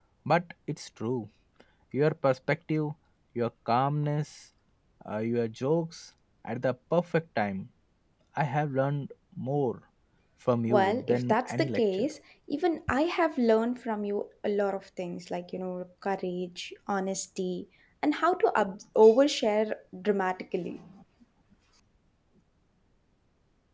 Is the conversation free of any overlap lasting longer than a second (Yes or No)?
No